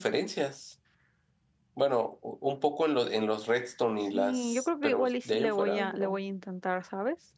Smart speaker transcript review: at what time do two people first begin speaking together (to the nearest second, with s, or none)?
4 s